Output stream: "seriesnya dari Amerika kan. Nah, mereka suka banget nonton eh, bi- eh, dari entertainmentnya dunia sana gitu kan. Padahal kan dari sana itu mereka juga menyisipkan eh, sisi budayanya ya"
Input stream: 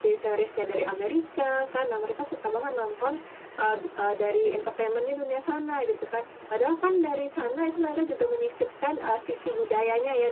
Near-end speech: none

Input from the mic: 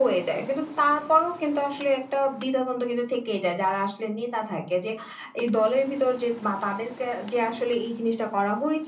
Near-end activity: none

